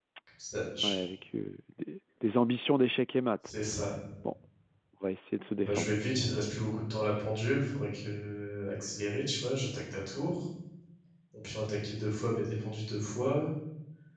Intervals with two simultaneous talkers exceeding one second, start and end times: none

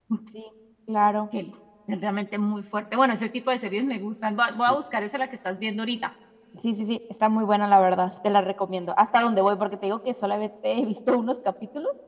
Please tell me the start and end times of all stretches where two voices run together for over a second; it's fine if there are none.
none

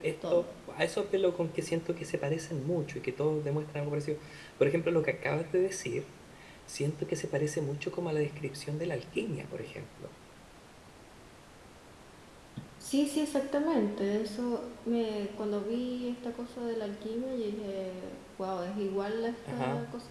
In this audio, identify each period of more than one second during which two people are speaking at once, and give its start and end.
none

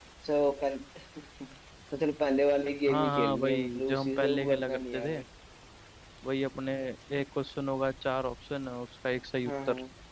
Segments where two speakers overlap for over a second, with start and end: 2.9-5.2

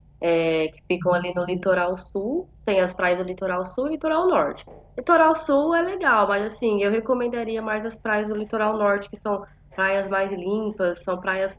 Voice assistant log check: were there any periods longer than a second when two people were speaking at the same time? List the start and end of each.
none

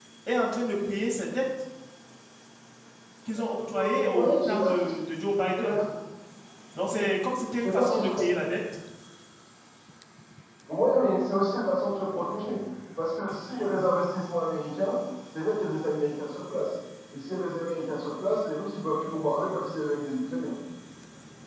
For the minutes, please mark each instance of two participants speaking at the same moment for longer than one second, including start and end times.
3.4-4.9

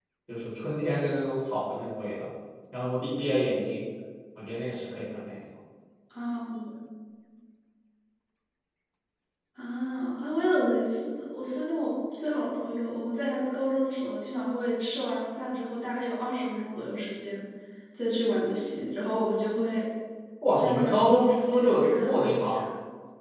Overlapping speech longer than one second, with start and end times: 20.5-22.6

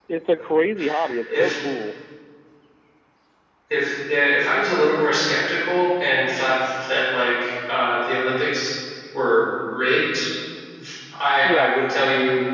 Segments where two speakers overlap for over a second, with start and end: none

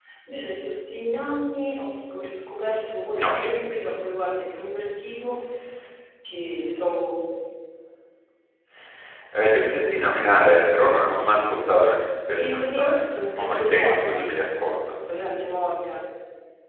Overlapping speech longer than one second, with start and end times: 12.3-14.2

